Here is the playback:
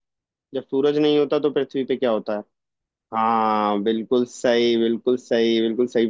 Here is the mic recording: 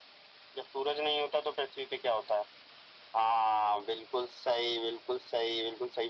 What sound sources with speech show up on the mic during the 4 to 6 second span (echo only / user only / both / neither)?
echo only